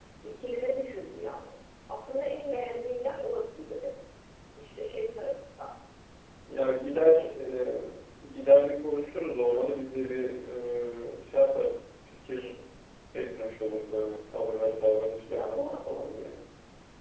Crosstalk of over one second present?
No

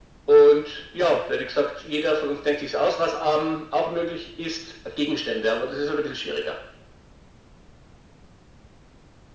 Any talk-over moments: No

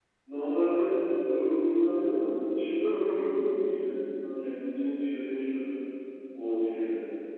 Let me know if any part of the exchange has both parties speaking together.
No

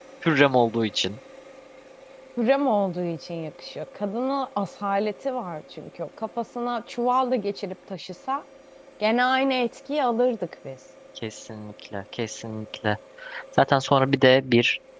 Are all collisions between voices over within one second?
Yes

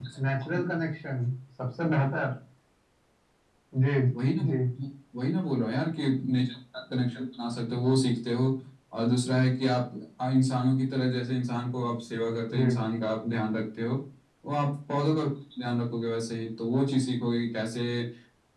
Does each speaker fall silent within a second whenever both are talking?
Yes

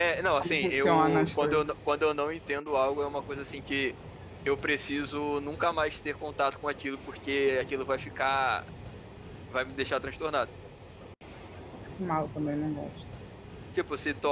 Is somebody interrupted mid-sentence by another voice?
Yes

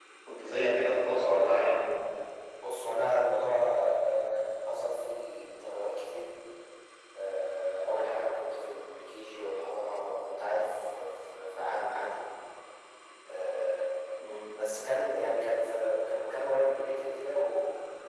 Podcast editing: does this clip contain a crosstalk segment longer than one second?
Yes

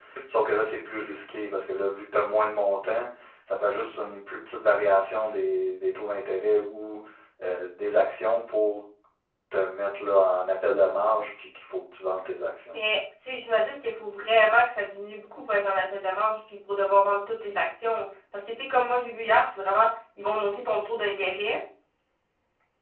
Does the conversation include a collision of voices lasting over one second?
No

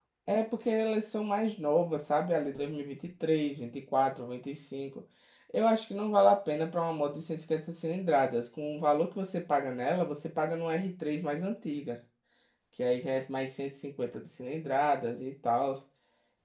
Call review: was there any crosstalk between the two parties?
No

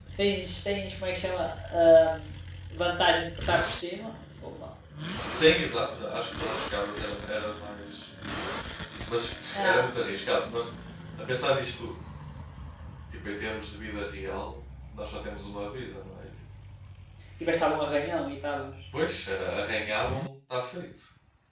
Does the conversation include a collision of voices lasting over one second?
No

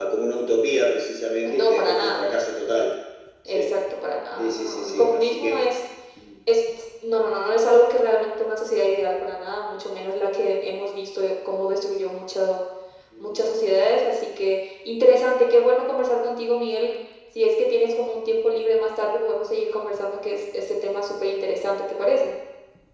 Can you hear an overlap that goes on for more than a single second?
Yes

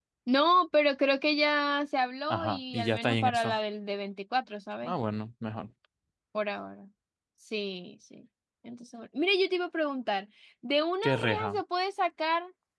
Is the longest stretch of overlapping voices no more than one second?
No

